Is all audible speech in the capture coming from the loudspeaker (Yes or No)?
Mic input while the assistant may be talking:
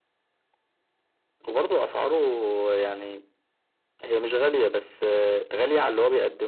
Yes